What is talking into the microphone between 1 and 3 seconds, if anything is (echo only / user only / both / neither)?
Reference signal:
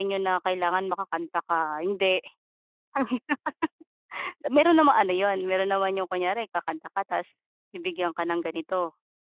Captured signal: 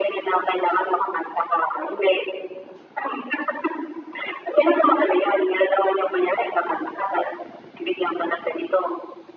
echo only